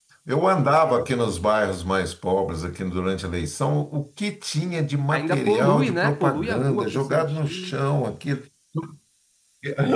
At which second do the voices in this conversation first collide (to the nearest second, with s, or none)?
5 s